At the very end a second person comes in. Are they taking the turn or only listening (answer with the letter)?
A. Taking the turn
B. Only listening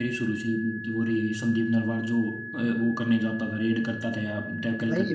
A